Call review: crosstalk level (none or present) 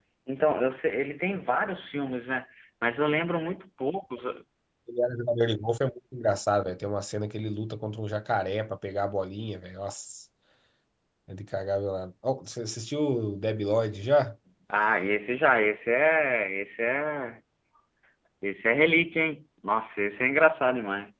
none